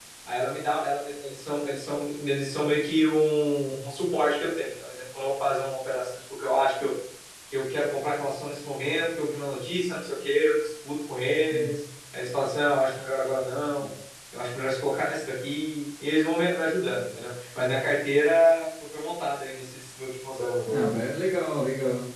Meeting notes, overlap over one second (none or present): none